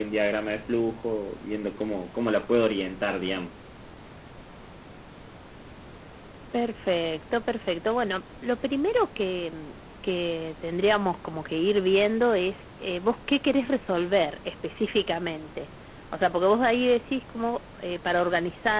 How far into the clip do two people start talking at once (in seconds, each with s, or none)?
none